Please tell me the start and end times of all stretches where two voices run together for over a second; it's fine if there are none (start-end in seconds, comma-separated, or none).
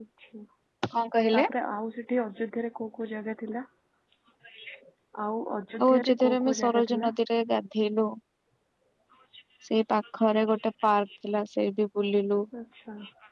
5.8-7.1